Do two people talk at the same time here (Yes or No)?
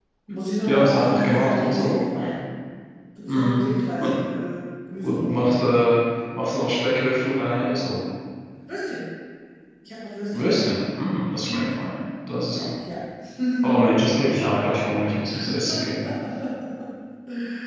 Yes